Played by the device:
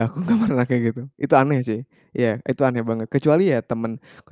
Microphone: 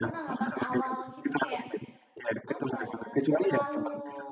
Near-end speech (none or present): present